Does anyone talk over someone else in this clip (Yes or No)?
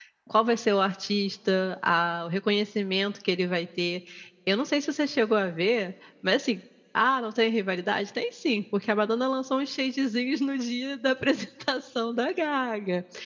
No